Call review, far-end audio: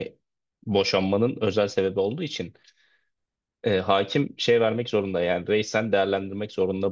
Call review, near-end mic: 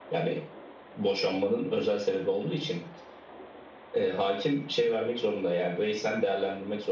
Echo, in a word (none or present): present